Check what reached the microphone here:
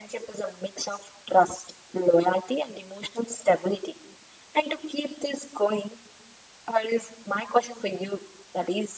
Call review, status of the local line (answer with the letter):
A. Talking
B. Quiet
B